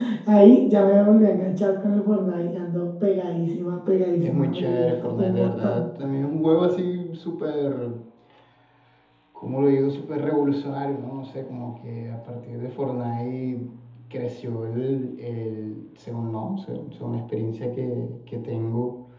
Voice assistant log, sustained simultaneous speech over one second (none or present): present